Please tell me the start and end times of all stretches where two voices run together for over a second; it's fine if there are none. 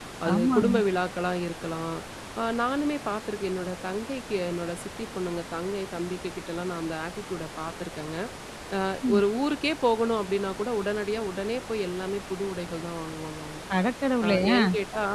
none

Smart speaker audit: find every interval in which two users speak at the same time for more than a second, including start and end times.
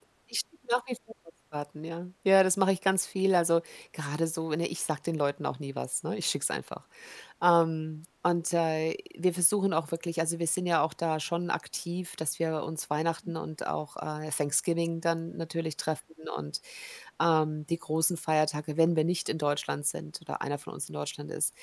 none

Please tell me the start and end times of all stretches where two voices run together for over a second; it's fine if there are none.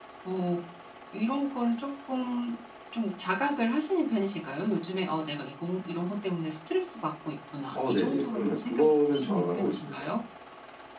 7.7-10.0

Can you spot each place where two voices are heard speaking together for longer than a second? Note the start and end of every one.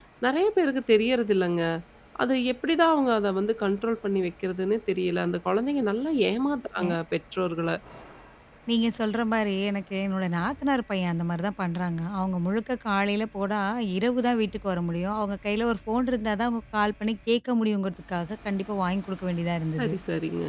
none

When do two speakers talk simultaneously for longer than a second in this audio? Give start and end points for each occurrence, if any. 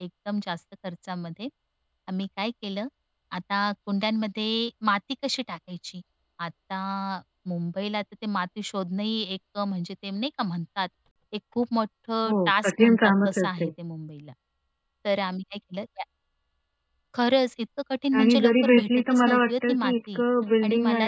12.3-13.7, 18.2-20.2

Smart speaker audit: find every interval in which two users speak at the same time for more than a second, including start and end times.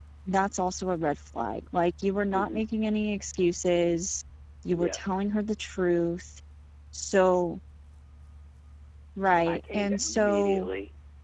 9.5-10.7

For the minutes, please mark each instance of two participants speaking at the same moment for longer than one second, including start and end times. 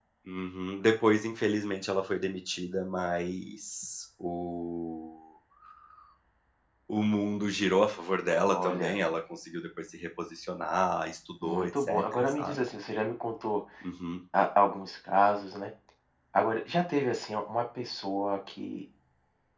11.4-12.6

